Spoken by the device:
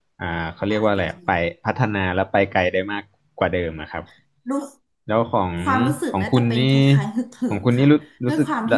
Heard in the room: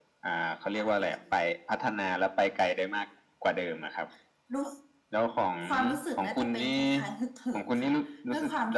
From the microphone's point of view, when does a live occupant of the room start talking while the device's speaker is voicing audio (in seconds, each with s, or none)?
none